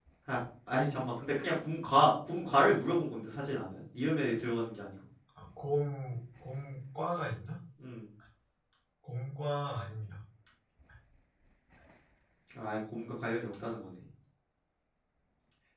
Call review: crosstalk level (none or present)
none